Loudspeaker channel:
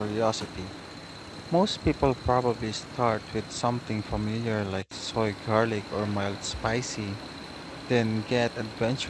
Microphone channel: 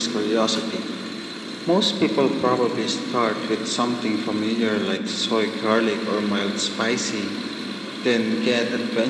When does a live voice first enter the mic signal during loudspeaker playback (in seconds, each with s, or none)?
none